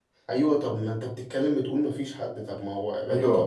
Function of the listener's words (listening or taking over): listening